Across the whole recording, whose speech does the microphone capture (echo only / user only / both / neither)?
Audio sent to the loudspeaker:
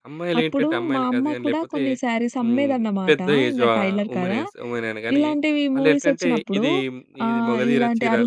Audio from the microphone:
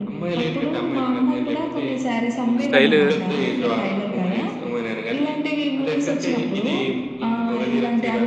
both